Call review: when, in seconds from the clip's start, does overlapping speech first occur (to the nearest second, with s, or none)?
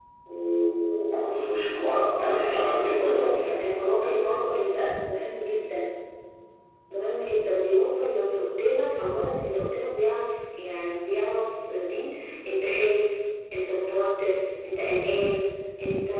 2 s